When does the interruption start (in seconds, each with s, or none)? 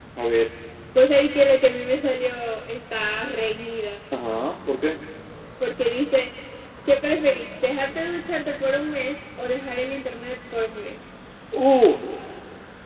none